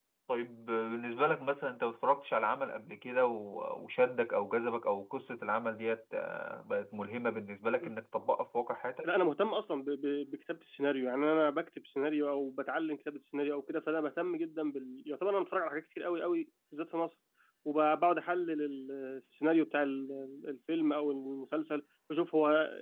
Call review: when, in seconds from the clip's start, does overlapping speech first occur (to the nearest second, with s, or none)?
none